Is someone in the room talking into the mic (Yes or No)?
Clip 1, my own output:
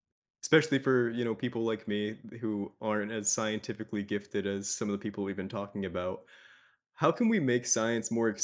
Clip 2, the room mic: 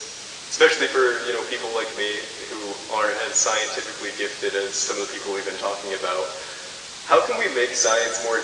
No